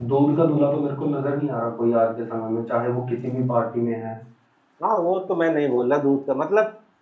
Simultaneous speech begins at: none

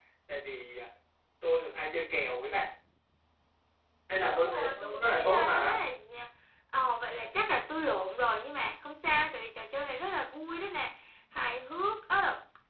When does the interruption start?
4.3 s

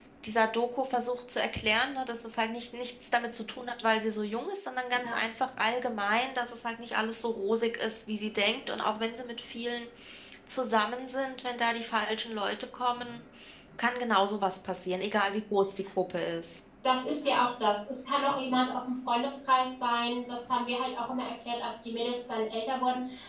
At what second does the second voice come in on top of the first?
none

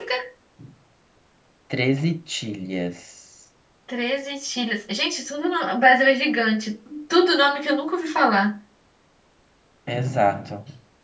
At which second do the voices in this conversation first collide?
none

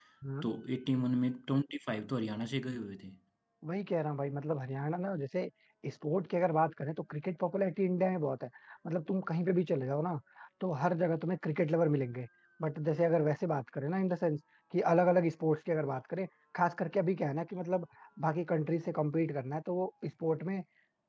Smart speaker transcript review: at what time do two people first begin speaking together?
none

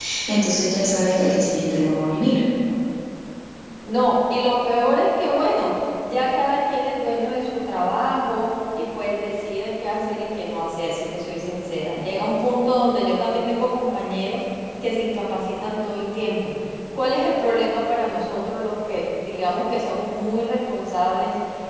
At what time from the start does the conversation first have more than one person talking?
none

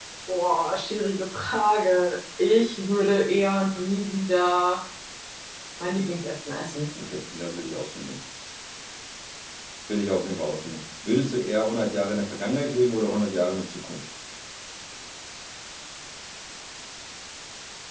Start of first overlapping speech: none

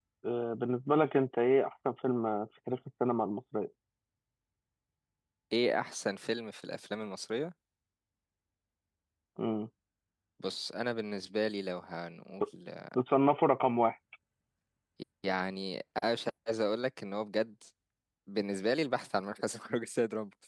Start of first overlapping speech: none

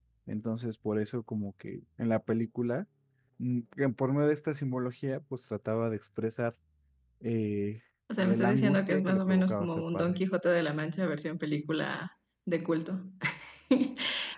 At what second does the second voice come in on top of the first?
8.1 s

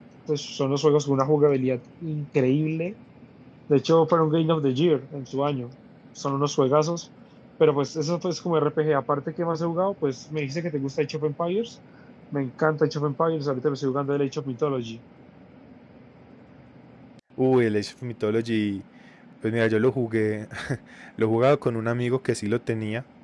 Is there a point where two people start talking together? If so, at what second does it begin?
none

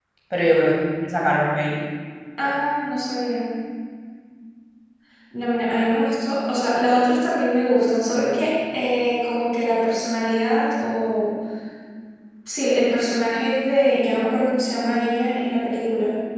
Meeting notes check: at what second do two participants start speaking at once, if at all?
none

